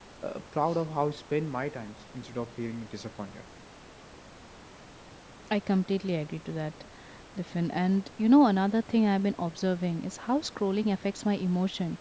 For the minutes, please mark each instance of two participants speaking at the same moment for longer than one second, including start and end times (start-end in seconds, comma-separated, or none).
none